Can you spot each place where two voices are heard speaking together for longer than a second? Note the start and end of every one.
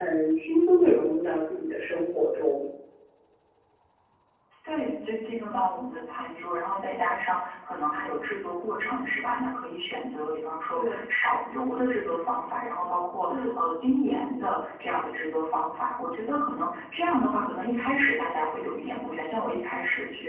none

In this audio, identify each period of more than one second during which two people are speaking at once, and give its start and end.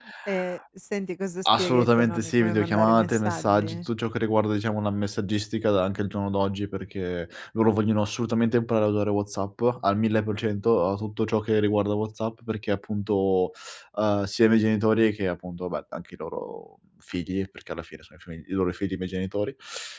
1.4-3.8

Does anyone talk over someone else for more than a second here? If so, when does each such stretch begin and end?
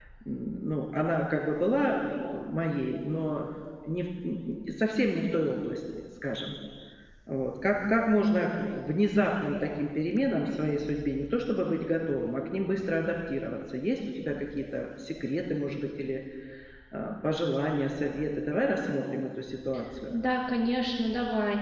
none

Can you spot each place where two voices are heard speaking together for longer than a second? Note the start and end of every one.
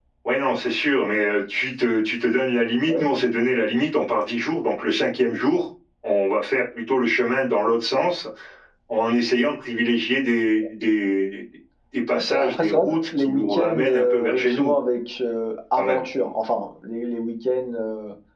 12.1-14.7

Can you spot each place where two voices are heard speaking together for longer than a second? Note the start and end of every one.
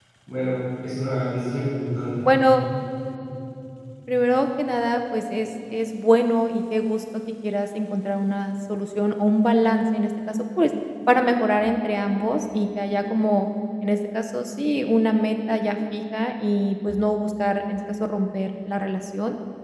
none

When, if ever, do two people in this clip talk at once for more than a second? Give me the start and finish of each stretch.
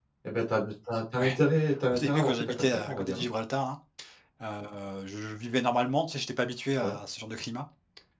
1.9-3.2

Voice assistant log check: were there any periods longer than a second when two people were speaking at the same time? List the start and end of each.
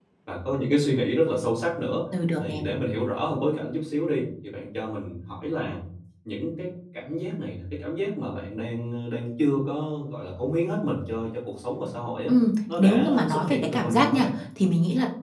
12.8-14.3

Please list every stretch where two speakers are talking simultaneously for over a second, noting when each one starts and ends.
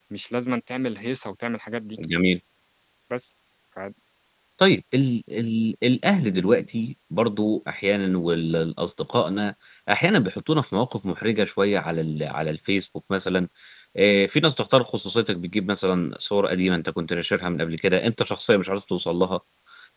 none

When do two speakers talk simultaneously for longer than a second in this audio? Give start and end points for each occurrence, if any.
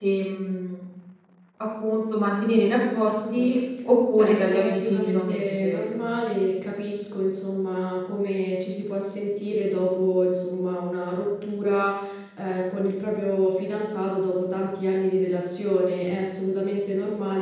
4.2-5.8

